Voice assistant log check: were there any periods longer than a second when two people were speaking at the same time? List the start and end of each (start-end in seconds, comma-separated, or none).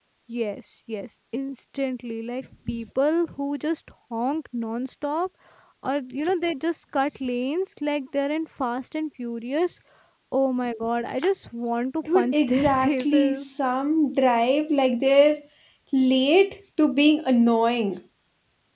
12.2-13.4